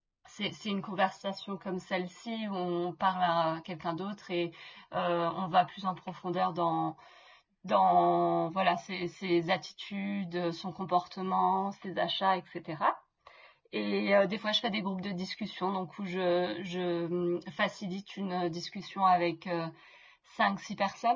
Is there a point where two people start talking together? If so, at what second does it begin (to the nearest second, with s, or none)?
none